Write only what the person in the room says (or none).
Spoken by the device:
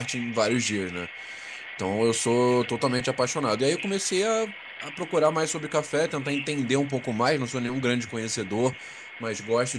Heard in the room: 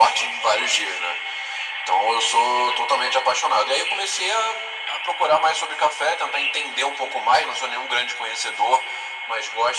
none